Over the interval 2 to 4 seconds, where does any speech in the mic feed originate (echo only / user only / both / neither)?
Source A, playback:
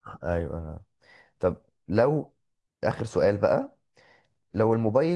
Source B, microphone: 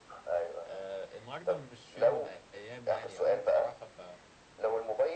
both